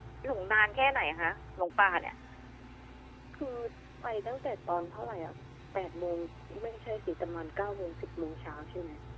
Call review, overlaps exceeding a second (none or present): none